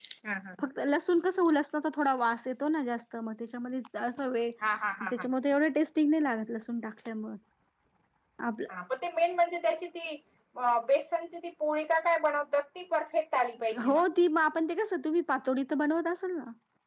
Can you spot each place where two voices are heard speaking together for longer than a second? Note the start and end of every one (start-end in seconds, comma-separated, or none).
none